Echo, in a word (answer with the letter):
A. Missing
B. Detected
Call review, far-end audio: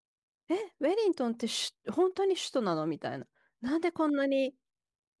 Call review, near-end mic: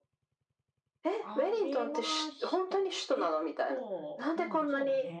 B